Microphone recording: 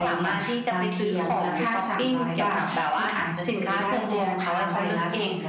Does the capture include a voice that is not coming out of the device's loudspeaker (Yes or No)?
Yes